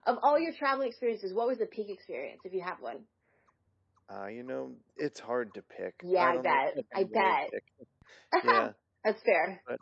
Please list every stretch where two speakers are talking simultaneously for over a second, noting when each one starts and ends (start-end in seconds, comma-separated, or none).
6.2-7.5